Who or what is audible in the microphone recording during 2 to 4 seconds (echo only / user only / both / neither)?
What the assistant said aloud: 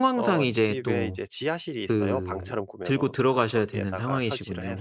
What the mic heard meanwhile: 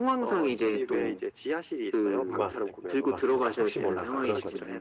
both